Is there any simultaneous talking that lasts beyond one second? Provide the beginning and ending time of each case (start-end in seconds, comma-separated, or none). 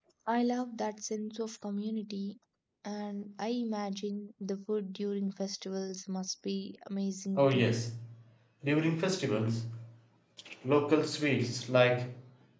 none